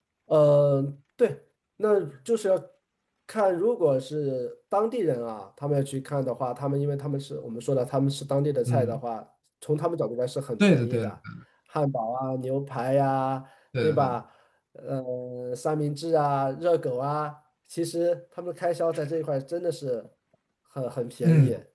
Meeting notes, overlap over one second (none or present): none